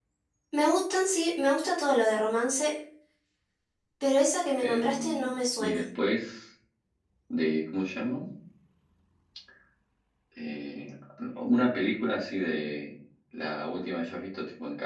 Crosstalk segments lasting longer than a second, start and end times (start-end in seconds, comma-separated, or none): 4.6-5.8